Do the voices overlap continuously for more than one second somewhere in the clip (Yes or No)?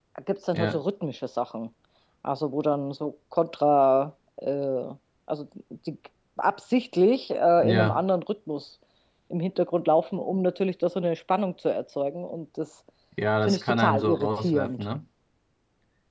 Yes